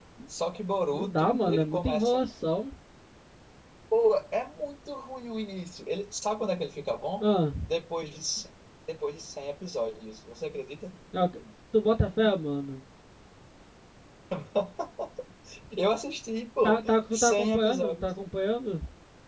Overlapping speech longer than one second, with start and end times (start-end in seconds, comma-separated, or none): 0.9-2.2, 16.6-18.1